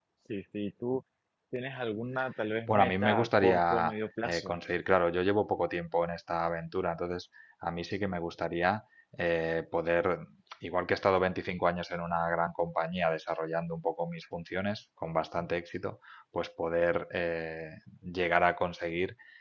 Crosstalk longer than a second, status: present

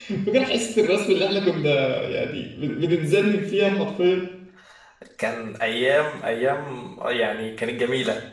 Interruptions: none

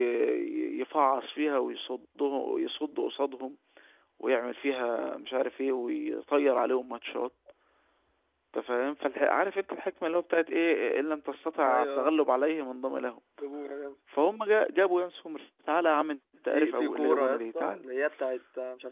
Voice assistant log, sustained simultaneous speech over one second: present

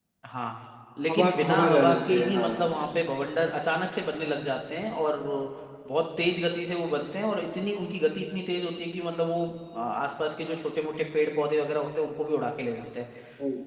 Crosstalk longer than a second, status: present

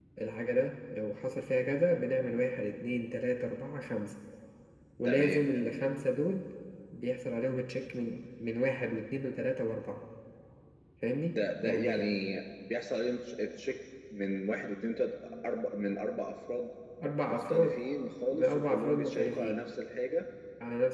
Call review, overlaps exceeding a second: present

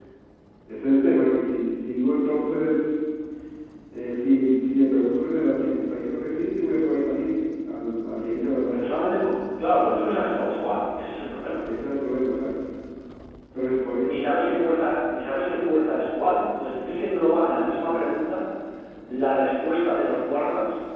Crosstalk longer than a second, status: none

